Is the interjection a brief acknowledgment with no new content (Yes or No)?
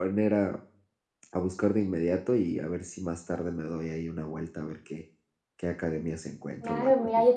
No